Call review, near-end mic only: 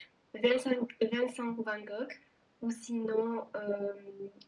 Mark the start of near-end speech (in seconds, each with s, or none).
none